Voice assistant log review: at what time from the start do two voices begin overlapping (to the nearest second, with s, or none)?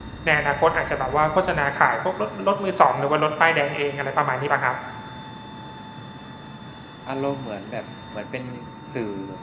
none